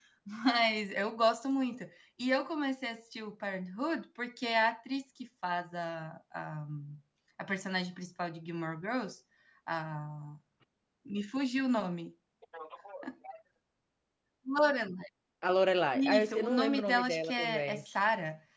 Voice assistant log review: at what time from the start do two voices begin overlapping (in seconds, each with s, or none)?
15.9 s